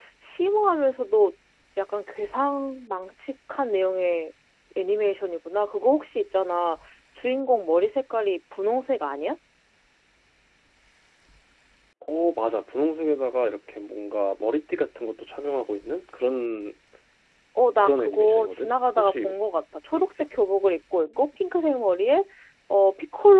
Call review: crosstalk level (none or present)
present